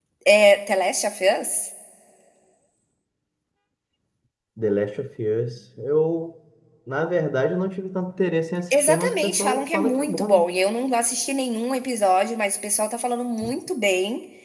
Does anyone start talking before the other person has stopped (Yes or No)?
Yes